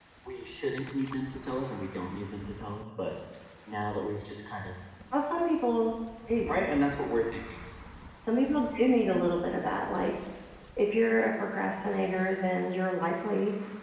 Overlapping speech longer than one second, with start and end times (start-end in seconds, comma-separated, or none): none